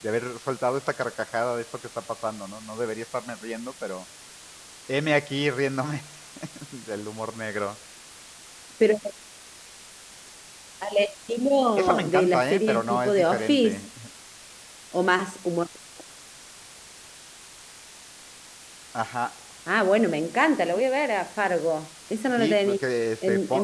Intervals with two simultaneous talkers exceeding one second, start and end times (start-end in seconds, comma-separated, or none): 11.8-13.8